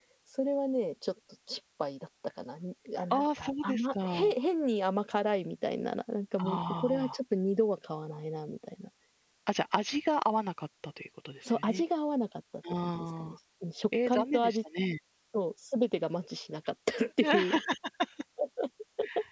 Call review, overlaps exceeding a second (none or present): present